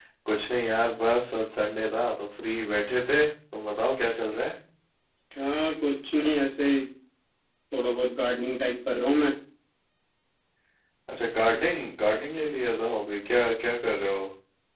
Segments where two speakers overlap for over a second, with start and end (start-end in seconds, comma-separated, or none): none